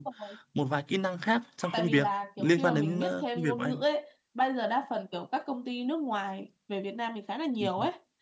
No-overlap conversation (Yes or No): No